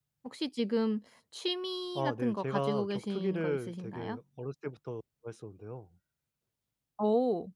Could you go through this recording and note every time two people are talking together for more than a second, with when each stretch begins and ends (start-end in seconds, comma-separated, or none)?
2.0-4.2